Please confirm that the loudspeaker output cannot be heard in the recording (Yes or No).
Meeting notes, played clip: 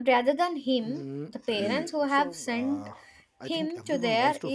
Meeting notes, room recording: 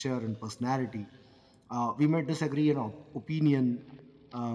Yes